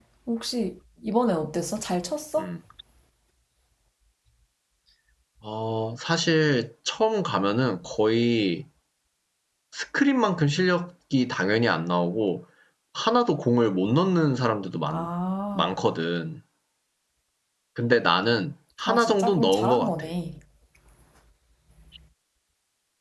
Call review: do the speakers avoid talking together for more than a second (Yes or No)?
No